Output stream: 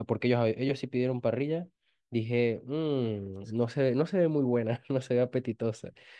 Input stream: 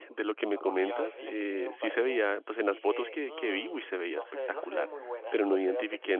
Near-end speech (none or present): present